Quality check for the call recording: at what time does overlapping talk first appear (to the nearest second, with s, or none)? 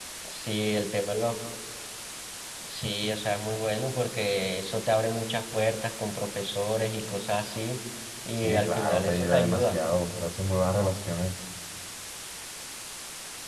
8 s